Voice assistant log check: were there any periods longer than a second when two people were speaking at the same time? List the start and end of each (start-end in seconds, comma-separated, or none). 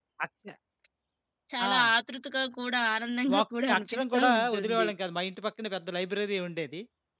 3.4-4.9